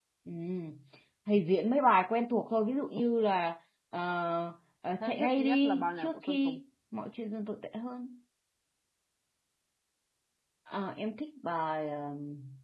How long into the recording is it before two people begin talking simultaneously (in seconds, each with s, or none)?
5.0 s